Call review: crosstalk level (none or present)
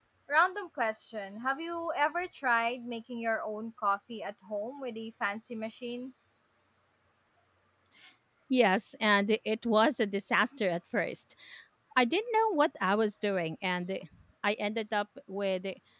none